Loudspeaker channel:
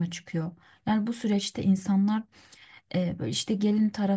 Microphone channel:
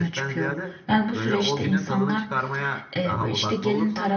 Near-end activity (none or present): present